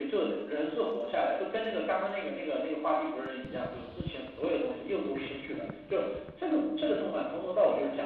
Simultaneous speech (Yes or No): No